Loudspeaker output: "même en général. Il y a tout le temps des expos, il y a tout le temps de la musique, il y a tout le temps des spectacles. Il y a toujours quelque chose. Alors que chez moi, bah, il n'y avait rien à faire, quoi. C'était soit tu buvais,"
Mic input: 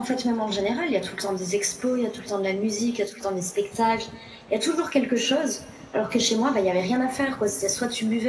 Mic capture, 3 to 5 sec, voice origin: echo only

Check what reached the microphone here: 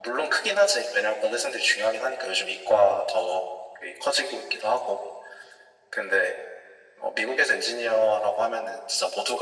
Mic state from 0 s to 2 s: echo only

